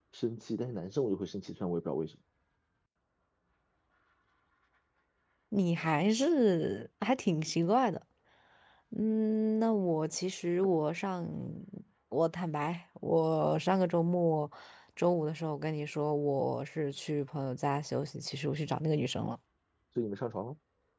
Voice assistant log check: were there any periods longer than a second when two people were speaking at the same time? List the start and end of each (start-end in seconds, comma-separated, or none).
none